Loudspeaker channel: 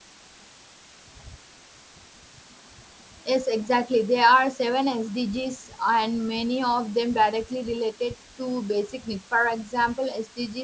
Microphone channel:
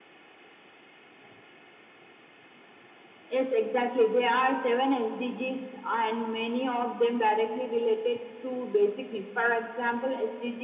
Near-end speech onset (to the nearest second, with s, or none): none